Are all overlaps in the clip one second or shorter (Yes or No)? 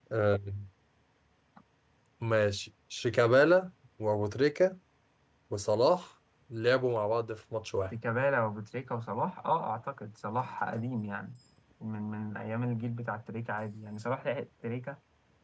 Yes